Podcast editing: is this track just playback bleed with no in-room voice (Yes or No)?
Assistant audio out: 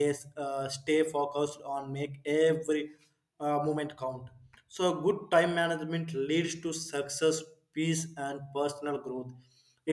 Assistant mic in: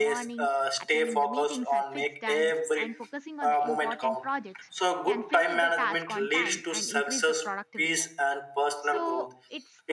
No